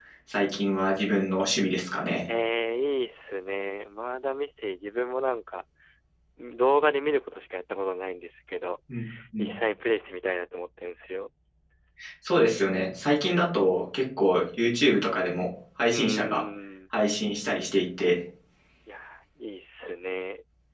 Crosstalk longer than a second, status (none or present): none